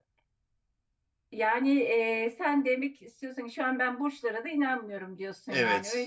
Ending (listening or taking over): taking over